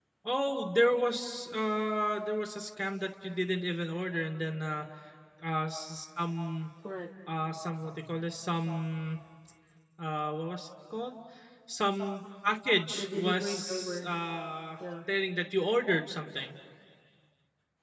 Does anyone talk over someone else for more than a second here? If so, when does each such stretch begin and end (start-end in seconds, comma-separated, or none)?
12.9-14.2